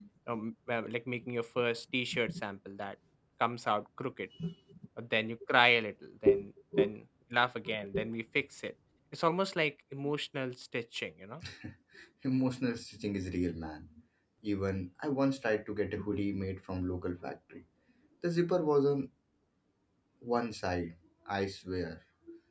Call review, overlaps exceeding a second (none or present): none